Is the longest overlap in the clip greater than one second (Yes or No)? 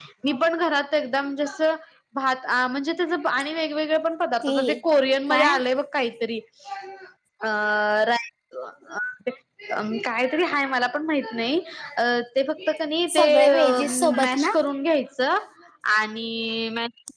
Yes